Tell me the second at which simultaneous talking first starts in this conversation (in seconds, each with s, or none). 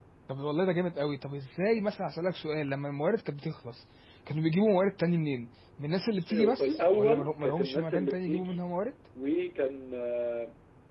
6.6 s